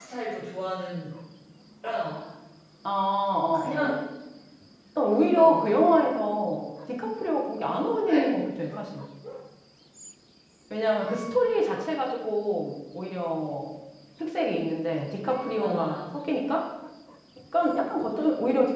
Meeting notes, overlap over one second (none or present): none